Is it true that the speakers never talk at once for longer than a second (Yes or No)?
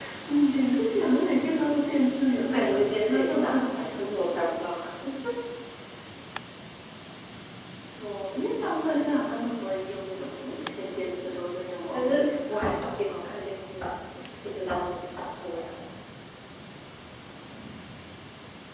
No